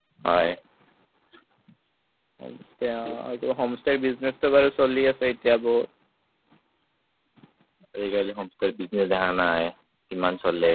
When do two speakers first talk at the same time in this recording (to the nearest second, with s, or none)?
none